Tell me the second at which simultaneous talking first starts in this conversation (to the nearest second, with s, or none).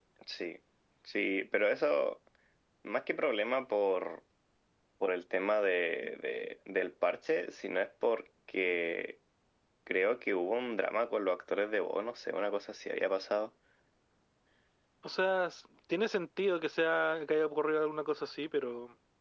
none